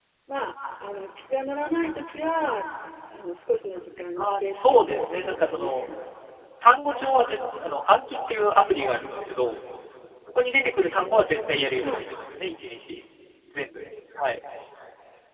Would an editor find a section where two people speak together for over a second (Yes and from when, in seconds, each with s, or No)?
Yes, from 4.2 s